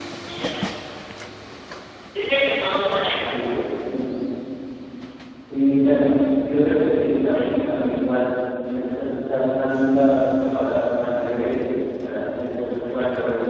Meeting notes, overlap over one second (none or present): none